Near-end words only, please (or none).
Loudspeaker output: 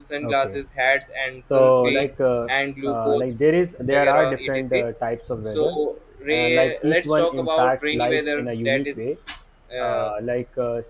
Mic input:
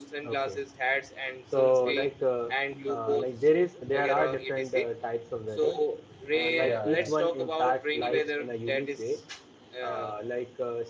Yeah. Right.